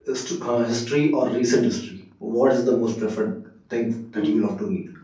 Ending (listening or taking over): taking over